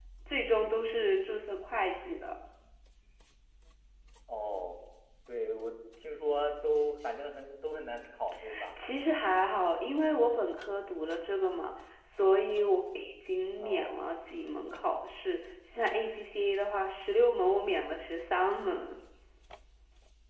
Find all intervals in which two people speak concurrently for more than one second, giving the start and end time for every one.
none

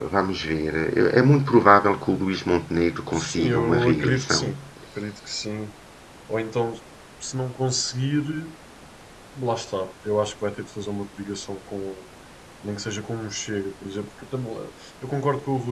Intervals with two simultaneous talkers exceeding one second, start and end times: 3.1-4.4

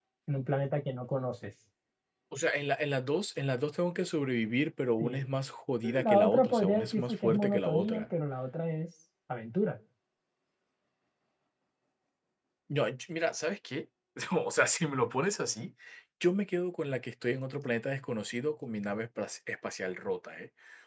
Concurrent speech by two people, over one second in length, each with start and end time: 5.8-8.0

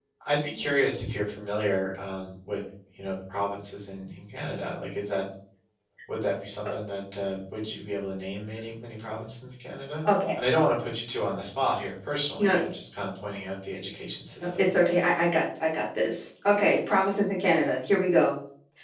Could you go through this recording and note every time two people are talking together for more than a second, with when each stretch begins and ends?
none

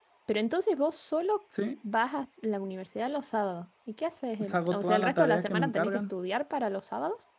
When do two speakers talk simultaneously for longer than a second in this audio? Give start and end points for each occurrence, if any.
4.4-6.1

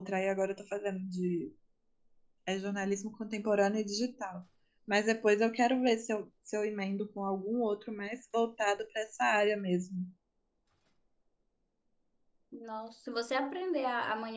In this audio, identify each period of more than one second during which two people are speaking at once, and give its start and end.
none

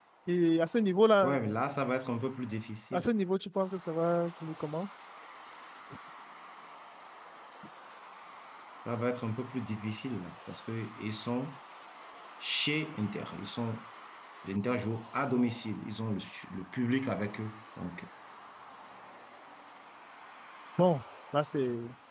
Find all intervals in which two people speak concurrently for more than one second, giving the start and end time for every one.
none

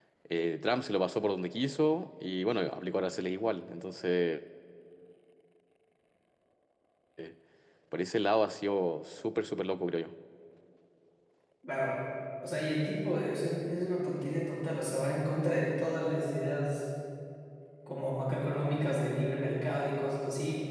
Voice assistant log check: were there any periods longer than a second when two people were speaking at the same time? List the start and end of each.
none

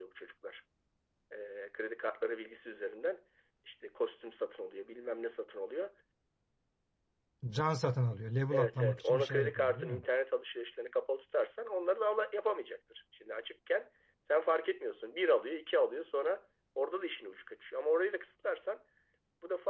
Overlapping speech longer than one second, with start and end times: 8.5-10.0

